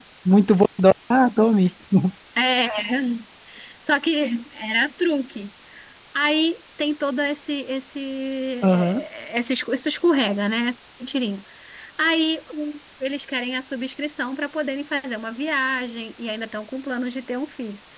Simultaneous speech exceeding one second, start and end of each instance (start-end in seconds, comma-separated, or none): none